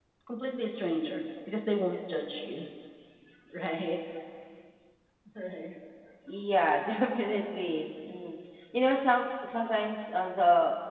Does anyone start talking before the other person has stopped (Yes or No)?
No